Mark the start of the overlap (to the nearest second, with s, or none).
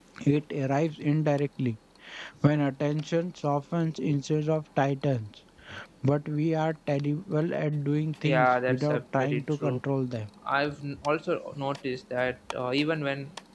8 s